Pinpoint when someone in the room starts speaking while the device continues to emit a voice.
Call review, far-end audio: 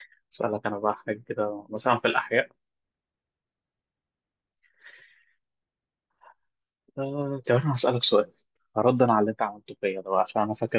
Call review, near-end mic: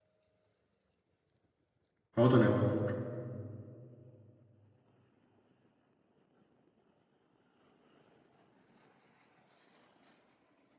2.2 s

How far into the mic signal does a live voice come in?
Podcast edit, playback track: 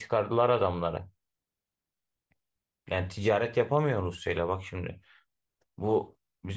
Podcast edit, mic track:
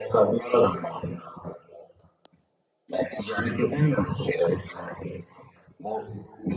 none

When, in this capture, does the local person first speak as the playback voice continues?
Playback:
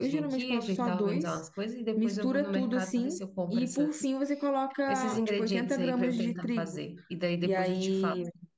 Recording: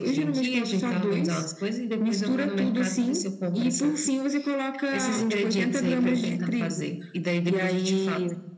none

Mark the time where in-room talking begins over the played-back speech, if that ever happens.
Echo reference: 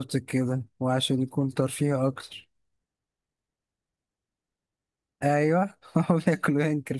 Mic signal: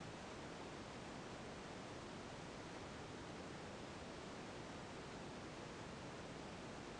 none

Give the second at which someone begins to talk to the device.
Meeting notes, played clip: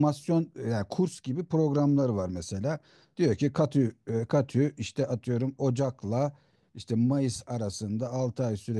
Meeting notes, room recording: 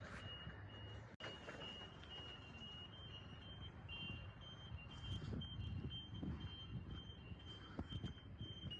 none

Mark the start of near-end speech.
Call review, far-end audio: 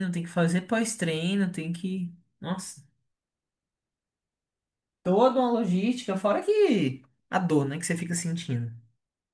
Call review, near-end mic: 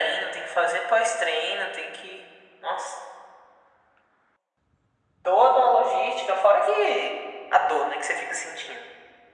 none

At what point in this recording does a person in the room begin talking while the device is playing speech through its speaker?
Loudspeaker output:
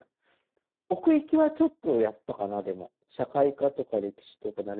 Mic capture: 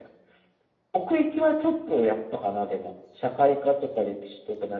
none

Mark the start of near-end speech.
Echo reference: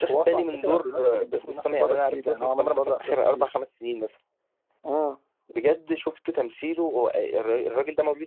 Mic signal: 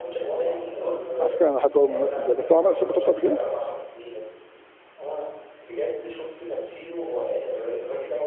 1.2 s

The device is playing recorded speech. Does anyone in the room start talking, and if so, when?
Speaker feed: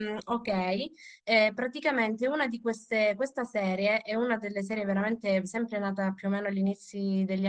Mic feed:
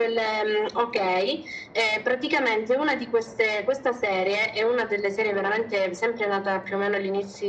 none

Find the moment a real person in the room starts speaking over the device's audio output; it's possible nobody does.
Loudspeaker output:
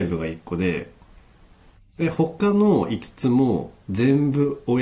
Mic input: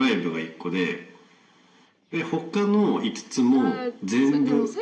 3.5 s

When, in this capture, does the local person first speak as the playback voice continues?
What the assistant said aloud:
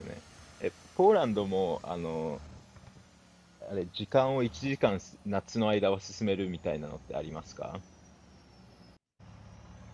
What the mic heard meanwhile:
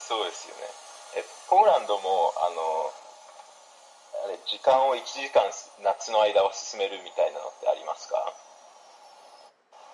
none

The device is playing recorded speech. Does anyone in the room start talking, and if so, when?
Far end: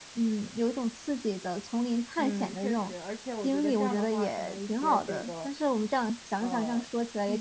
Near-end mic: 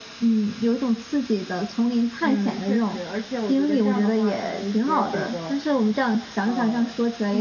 none

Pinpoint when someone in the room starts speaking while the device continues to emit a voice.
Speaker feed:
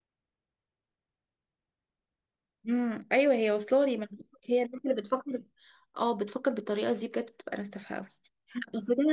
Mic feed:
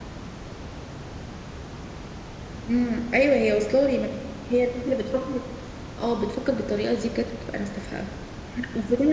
none

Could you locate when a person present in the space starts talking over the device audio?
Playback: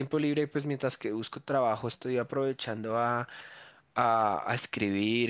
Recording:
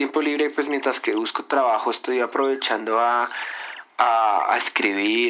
none

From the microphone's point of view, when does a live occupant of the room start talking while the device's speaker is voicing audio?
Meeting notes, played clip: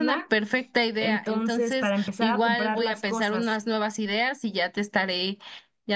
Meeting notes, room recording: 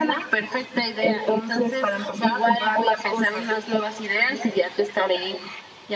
none

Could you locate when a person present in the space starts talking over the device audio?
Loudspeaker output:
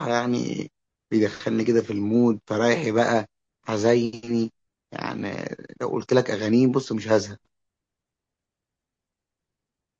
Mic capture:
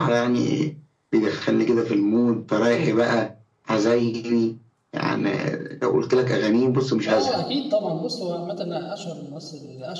7.1 s

